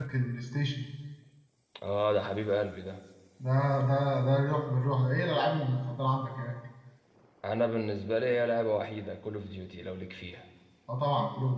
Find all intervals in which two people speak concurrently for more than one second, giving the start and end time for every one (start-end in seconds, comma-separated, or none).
none